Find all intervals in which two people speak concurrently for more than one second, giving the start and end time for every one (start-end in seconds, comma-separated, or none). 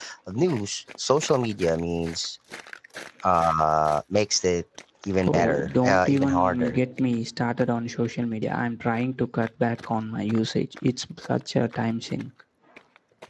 5.2-6.8